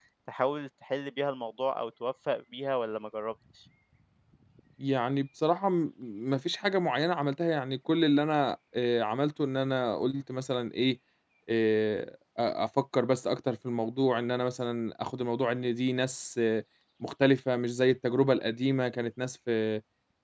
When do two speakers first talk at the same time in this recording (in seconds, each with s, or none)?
none